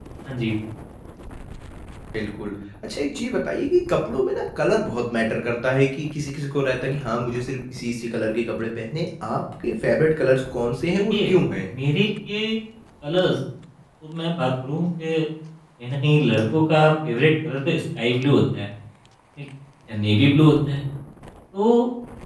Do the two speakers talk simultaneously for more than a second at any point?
No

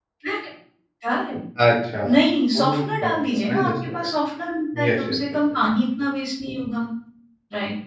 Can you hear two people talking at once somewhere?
Yes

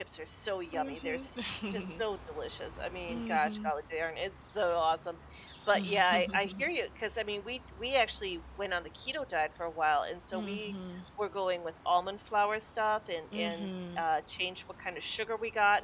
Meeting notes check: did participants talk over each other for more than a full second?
Yes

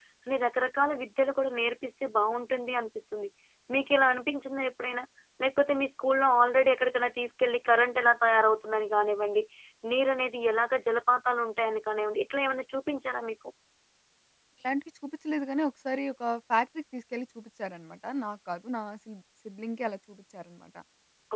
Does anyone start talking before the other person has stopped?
No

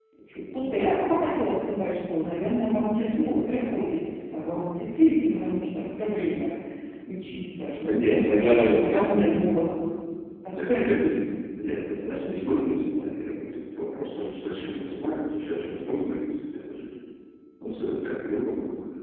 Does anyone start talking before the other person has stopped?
Yes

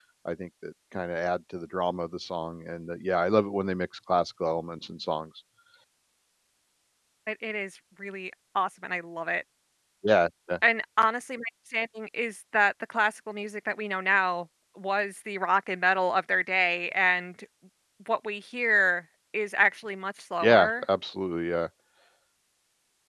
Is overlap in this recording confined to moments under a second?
Yes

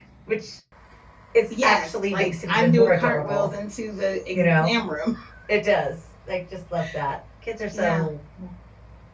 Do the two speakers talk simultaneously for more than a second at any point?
Yes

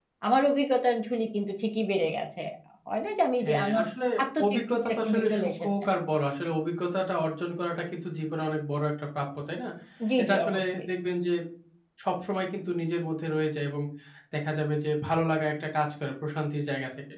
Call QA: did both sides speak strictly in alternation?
No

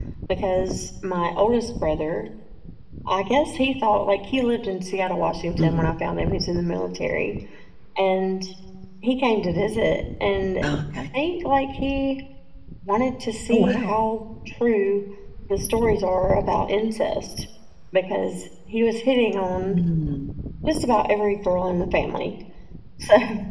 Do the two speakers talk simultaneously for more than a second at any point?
No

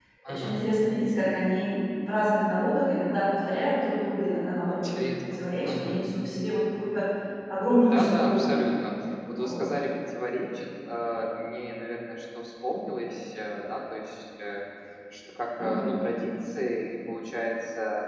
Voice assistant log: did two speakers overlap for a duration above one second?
Yes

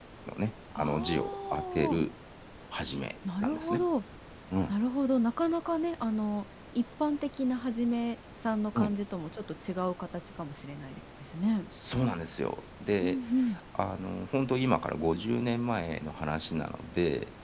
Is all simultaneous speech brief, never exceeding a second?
No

